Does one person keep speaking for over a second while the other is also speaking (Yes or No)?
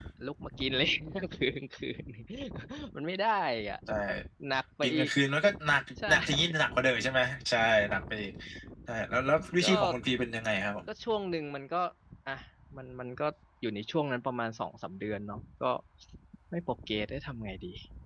No